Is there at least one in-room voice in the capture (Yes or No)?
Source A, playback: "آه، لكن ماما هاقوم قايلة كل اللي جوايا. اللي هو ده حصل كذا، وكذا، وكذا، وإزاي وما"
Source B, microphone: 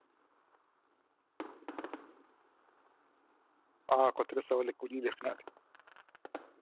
Yes